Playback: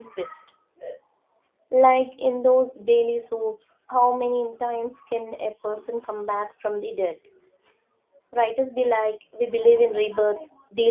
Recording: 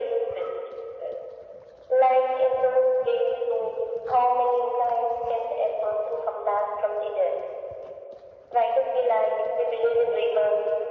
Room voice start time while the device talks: none

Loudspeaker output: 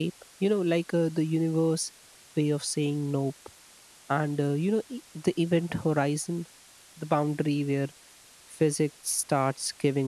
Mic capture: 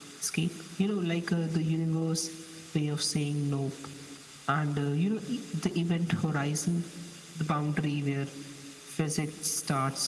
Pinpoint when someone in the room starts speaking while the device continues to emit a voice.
none

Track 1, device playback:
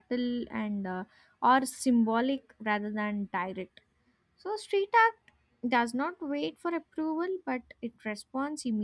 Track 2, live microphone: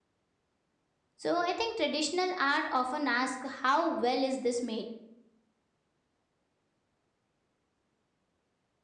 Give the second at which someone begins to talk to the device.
1.2 s

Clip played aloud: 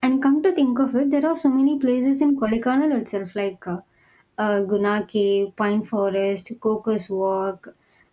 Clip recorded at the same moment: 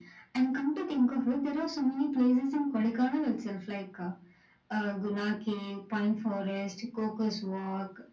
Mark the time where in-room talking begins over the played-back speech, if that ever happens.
none

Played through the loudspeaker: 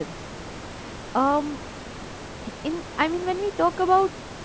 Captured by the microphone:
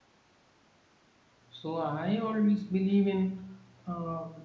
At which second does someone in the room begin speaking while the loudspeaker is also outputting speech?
1.5 s

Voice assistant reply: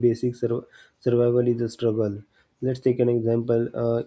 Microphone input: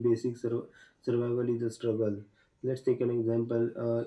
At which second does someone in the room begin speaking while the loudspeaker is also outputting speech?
none

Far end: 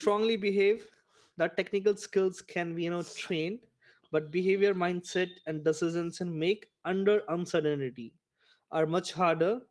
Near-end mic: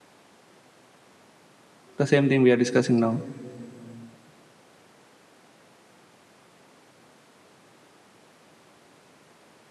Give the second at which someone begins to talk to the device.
2.0 s

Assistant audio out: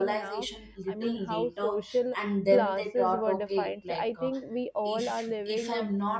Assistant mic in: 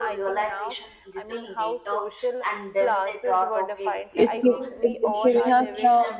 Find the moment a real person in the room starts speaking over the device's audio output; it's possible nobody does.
4.1 s

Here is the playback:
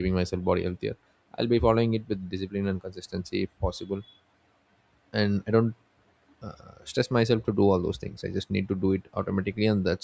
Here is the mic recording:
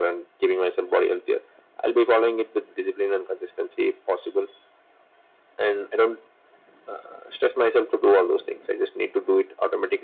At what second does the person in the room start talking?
none

